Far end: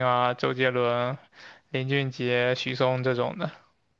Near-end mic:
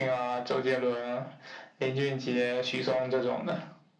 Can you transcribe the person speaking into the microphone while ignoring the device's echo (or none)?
none